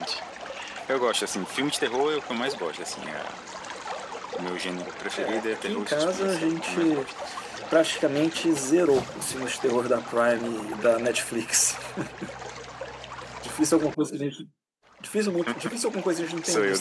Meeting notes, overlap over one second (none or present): present